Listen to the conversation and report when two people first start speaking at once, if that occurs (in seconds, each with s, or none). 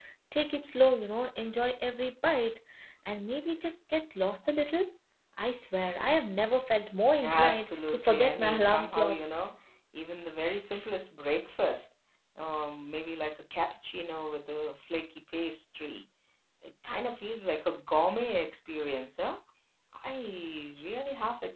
7.2 s